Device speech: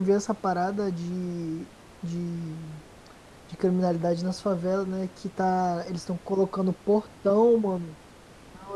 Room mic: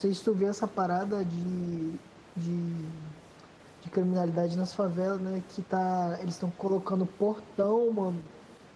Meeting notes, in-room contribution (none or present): none